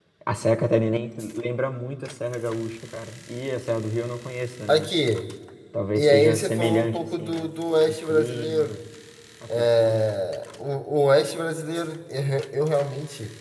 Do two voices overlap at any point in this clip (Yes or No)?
Yes